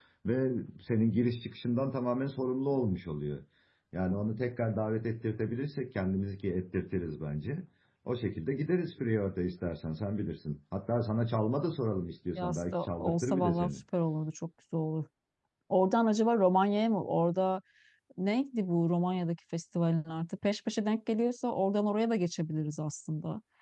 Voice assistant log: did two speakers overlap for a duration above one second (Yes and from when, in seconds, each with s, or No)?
Yes, from 12.4 s